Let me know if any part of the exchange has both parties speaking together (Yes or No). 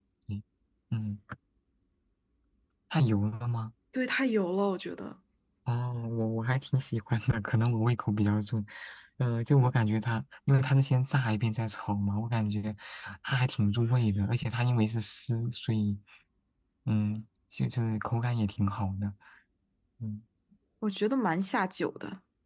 No